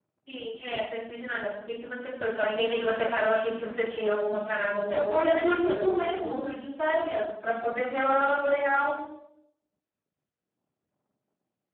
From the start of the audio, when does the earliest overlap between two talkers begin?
4.9 s

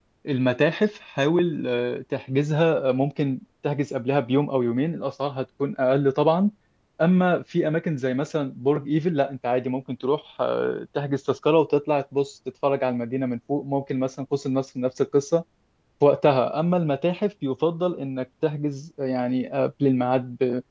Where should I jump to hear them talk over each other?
none

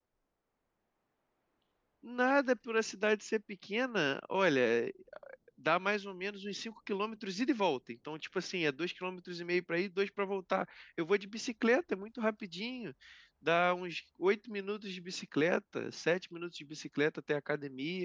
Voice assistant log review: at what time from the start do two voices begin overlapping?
none

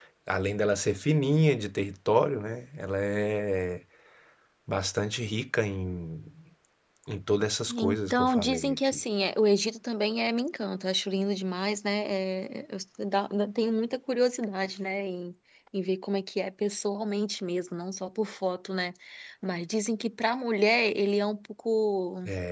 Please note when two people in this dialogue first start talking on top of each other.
7.7 s

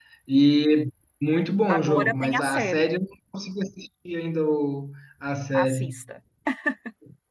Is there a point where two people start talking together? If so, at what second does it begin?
1.7 s

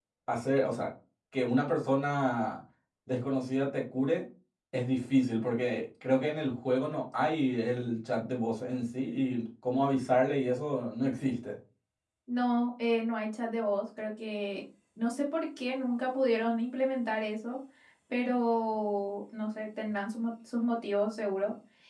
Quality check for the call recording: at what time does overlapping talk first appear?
none

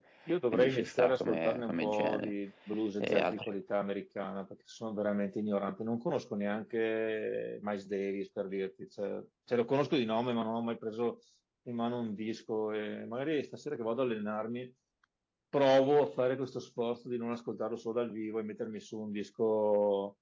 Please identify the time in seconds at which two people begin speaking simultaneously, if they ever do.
0.5 s

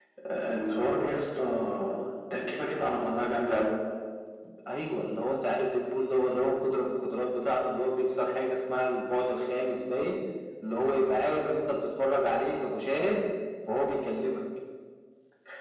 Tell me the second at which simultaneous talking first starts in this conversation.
none

